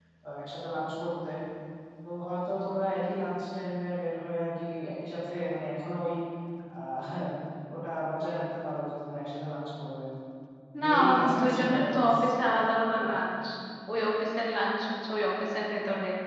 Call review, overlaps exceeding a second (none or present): present